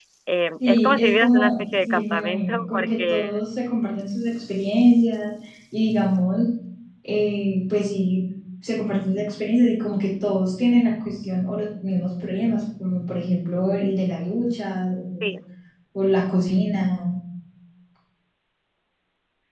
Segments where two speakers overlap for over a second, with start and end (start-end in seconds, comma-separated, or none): 0.7-3.4